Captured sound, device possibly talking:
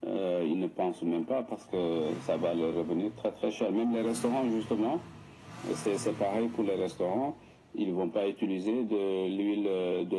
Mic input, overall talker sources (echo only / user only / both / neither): echo only